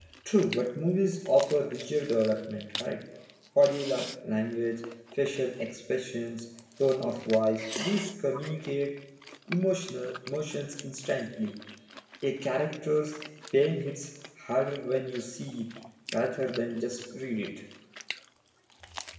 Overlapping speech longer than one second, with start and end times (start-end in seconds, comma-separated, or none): none